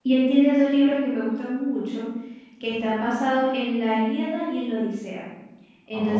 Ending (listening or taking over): listening